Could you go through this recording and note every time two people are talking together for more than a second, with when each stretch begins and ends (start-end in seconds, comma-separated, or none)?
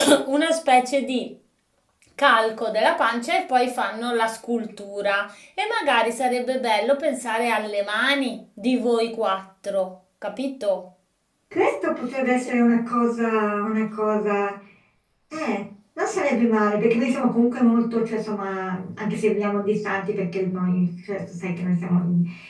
none